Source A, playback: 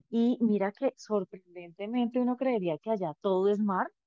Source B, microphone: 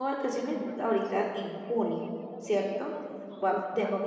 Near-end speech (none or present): present